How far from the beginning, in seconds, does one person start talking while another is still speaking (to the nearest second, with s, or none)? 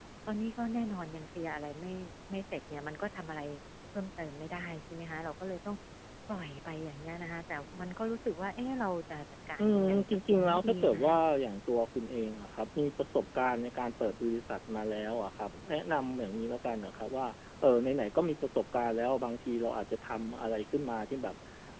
10 s